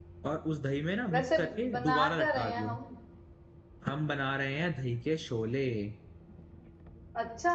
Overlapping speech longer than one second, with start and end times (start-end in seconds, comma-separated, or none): 1.1-2.8